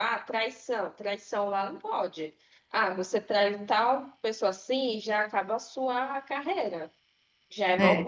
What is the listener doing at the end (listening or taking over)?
listening